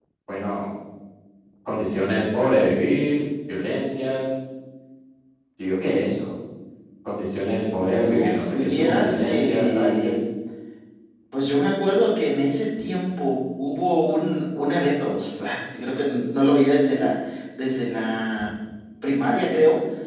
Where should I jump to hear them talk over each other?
8.1 s

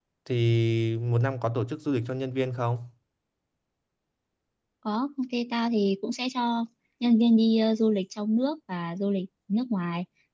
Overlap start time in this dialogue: none

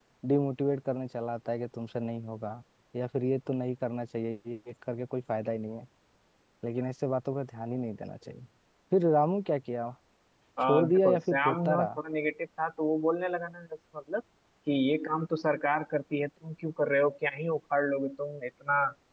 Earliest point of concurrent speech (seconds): 10.6 s

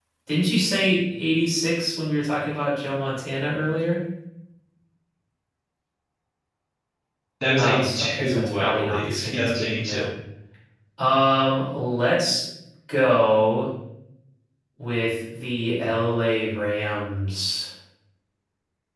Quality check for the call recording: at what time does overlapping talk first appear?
7.6 s

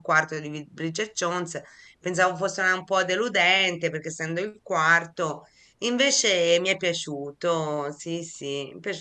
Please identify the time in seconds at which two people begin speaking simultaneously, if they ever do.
none

